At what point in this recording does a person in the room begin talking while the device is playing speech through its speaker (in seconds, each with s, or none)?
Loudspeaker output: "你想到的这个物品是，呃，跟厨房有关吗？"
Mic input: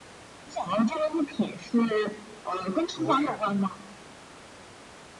2.9 s